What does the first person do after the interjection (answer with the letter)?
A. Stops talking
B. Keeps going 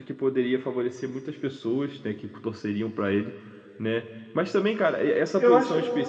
B